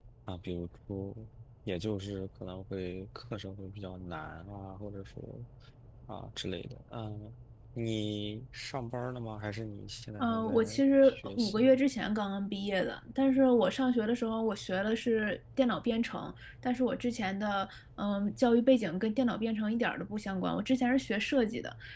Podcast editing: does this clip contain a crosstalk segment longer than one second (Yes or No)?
Yes